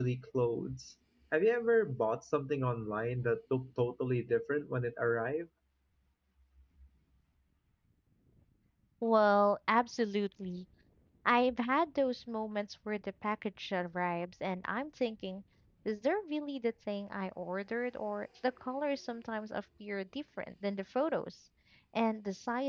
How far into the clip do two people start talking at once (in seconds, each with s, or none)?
none